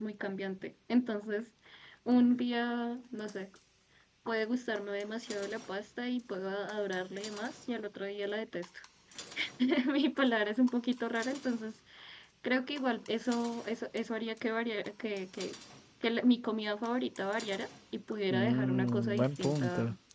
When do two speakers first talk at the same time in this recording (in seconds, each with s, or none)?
18.3 s